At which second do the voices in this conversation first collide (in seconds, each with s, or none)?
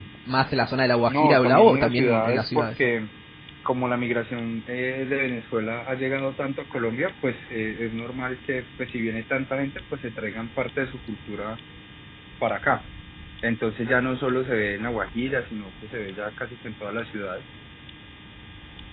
1.1 s